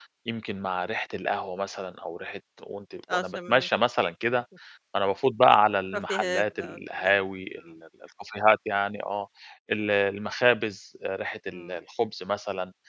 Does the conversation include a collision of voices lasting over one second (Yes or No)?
Yes